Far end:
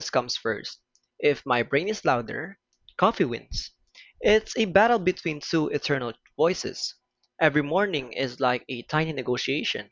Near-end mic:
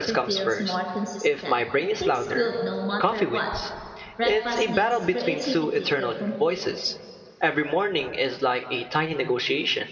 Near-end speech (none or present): present